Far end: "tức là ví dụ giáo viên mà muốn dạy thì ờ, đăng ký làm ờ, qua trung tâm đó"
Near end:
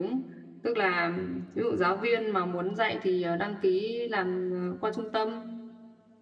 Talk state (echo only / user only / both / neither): echo only